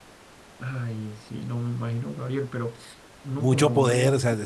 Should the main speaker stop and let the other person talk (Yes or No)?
Yes